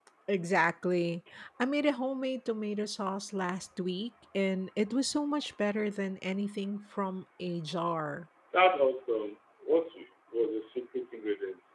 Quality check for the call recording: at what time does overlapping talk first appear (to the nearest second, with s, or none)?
none